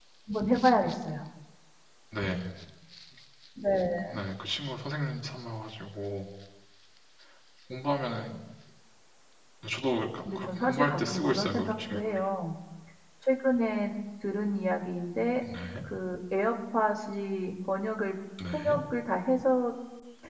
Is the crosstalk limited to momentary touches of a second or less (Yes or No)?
No